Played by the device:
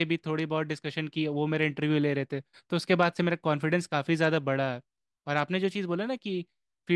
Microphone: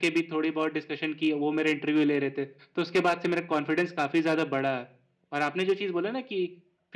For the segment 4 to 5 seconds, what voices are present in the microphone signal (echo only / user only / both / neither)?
echo only